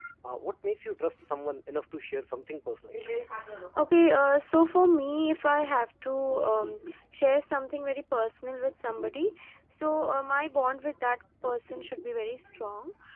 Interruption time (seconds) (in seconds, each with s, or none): none